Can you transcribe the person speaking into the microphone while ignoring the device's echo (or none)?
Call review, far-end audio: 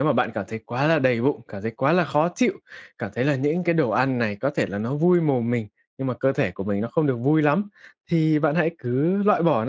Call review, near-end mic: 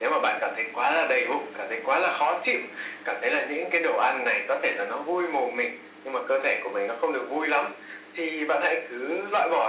none